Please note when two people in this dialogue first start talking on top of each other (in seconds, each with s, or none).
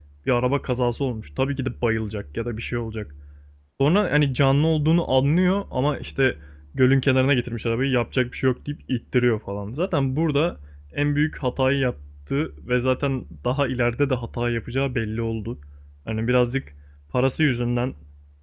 none